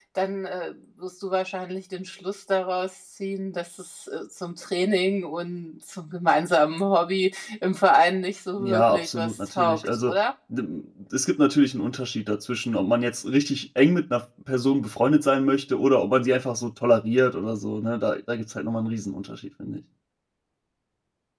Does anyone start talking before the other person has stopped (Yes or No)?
Yes